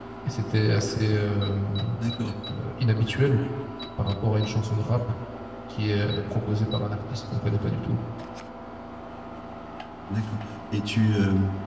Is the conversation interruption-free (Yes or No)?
Yes